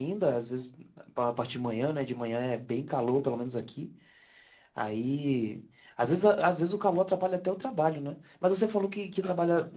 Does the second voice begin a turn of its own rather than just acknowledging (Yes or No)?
No